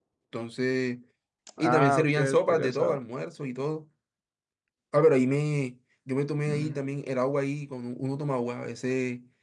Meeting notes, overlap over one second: present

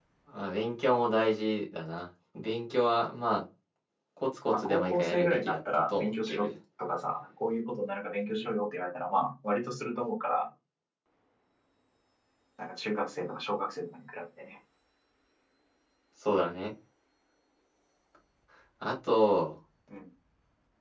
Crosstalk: present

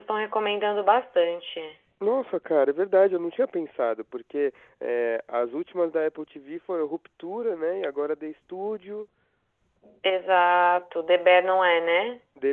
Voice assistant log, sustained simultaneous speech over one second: none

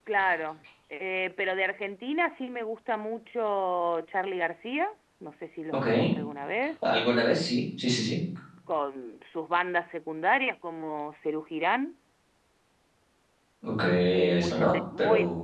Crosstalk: present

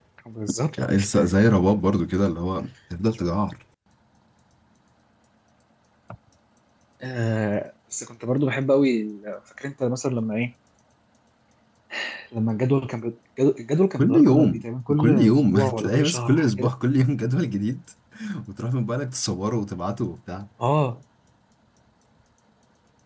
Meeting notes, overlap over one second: present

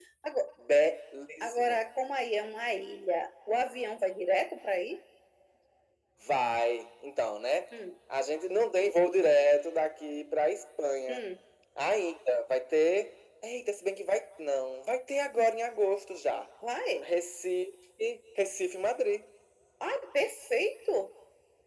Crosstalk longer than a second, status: none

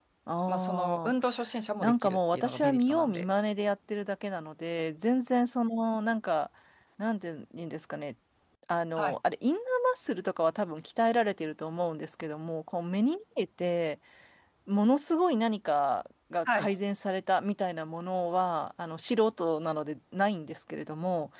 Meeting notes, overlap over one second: present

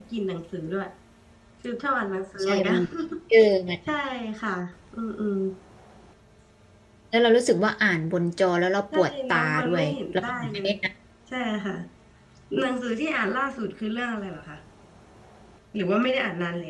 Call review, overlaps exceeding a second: present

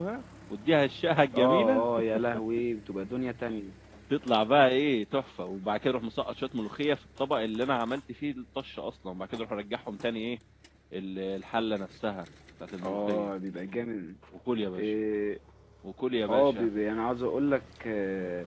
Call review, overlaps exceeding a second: none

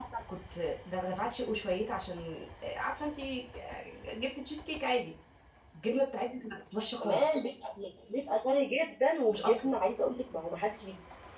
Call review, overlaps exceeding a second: none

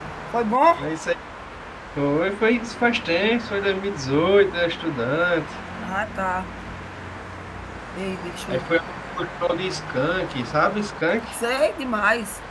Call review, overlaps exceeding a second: none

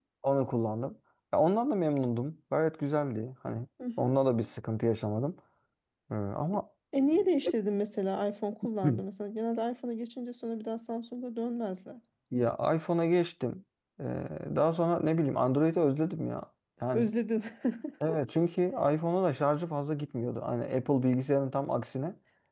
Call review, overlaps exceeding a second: none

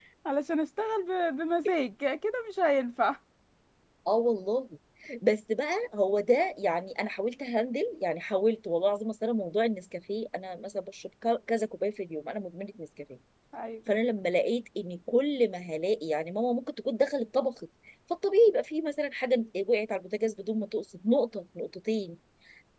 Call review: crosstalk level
none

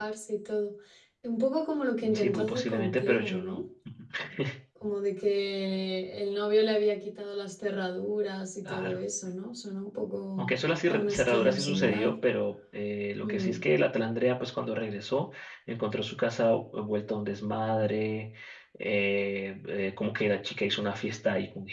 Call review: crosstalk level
present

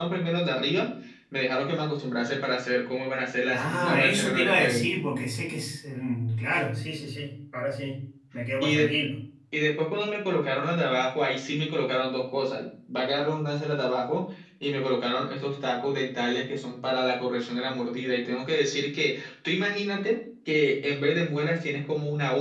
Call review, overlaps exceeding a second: present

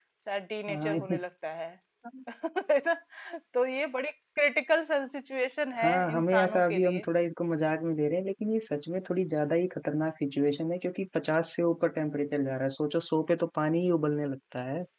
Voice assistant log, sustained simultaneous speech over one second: present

